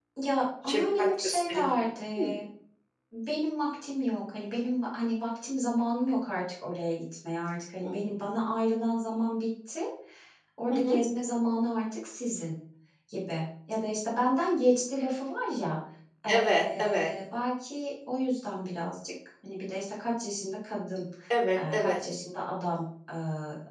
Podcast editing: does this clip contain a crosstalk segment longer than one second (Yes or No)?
Yes